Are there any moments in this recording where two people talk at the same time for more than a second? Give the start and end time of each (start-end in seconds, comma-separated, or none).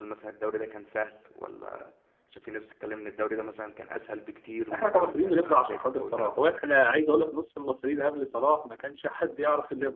4.7-6.5